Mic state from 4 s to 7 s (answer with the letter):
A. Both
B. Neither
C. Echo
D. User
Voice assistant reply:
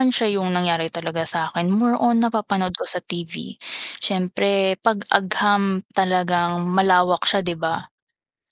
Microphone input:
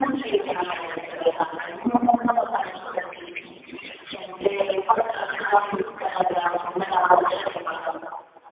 A